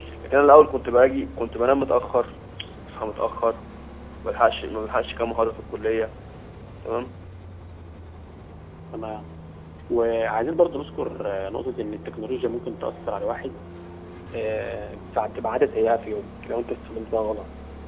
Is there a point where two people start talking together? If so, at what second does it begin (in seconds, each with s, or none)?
none